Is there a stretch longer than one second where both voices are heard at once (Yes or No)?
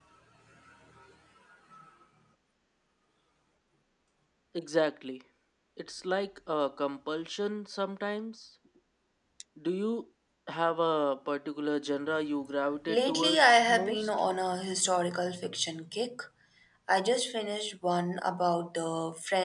Yes